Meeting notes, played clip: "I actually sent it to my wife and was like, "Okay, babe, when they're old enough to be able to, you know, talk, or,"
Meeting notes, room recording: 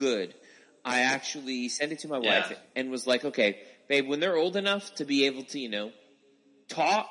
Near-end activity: present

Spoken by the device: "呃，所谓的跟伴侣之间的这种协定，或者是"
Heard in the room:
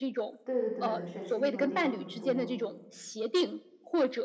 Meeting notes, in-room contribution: present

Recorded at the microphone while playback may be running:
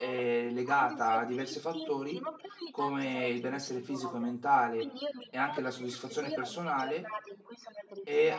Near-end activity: present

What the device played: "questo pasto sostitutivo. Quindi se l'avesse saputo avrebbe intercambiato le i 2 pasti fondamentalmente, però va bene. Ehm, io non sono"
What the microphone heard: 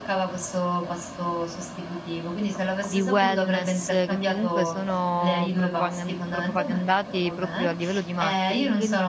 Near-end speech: present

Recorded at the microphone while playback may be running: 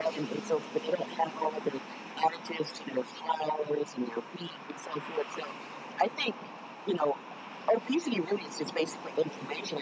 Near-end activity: none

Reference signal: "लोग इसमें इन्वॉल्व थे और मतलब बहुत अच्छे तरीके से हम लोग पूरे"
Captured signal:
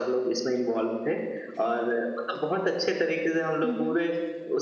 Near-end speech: present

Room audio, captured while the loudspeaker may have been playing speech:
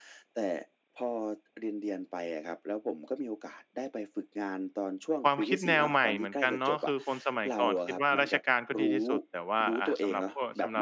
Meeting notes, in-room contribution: present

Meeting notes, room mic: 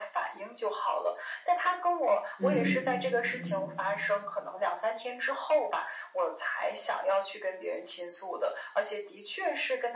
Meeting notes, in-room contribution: present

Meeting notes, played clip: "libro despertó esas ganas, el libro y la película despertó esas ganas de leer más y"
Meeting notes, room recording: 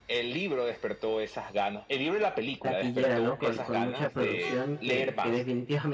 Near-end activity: present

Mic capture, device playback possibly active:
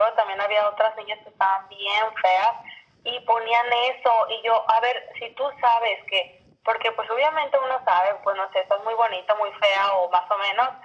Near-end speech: none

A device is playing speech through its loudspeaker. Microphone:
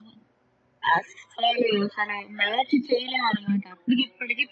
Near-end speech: none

